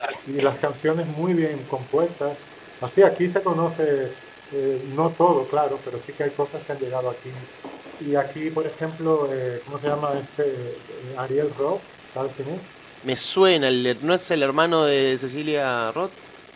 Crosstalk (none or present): none